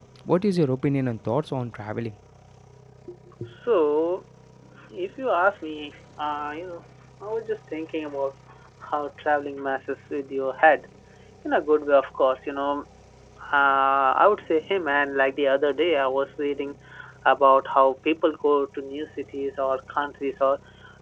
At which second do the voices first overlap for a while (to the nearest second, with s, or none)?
none